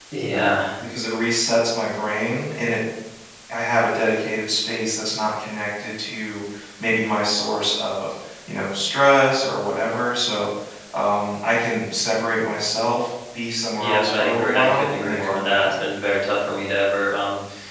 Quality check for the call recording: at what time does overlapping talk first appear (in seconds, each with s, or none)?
13.8 s